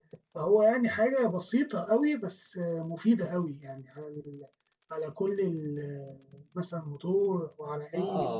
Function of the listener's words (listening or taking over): taking over